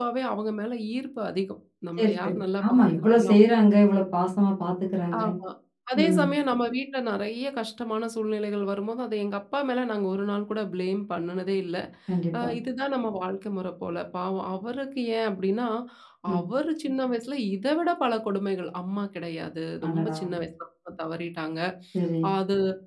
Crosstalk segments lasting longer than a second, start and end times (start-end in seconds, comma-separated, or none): 2.0-3.3